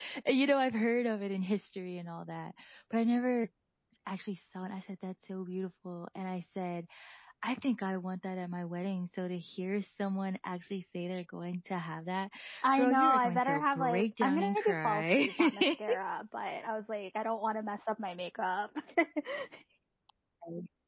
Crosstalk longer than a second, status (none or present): present